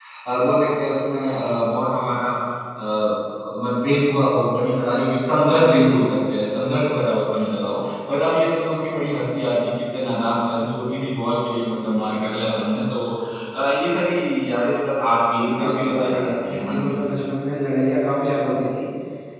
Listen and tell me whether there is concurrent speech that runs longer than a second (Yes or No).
Yes